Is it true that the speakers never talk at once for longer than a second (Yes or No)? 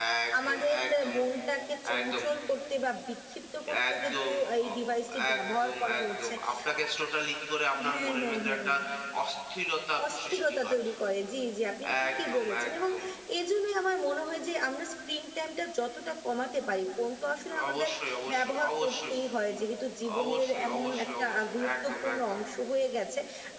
No